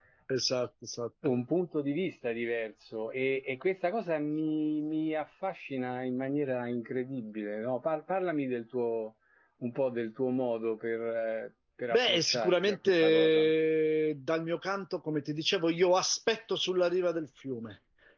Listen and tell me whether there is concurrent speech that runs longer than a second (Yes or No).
Yes